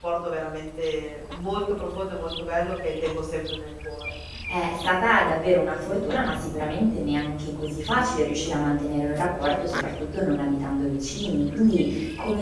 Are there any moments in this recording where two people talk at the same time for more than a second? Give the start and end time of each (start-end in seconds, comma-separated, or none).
none